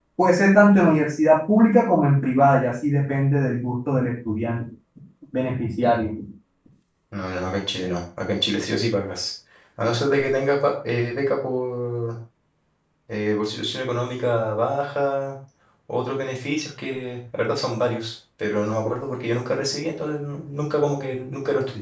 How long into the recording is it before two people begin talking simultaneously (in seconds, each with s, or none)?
none